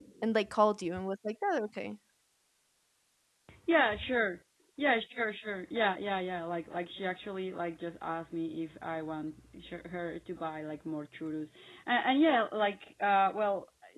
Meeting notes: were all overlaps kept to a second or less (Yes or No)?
Yes